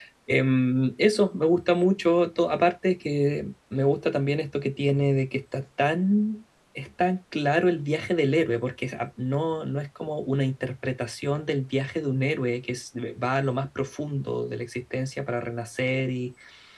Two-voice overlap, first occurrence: none

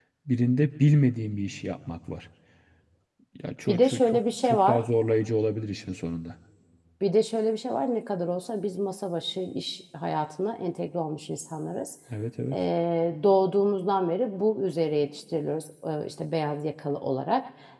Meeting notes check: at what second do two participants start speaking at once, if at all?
4 s

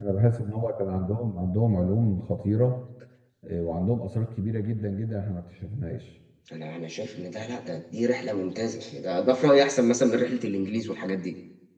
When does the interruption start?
none

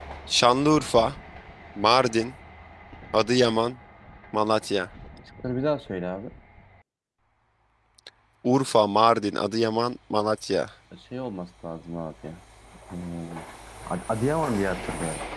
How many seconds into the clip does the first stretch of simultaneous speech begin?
none

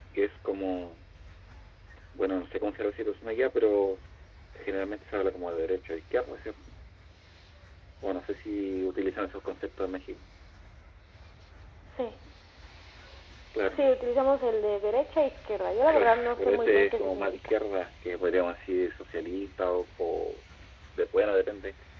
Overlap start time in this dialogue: 16 s

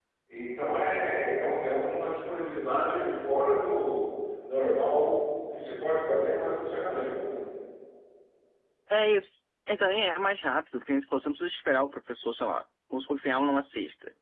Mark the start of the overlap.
none

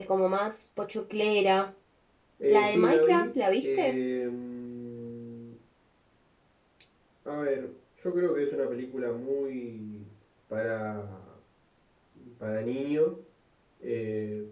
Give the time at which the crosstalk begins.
2 s

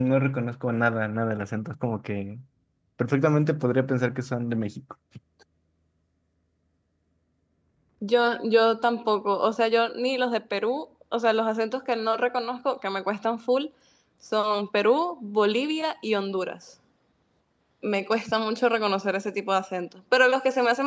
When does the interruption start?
none

